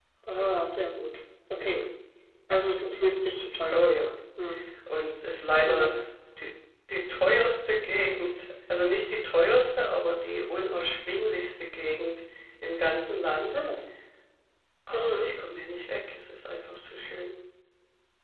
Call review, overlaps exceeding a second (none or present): none